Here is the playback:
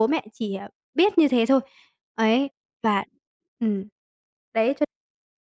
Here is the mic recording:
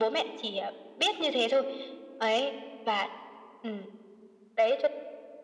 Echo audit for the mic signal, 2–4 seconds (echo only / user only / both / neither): echo only